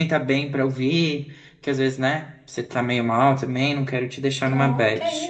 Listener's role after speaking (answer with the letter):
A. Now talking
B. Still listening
A